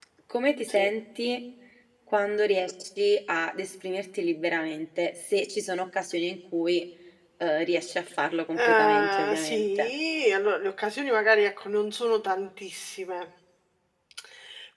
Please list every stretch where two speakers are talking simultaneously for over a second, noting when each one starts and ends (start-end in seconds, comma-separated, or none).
8.6-9.9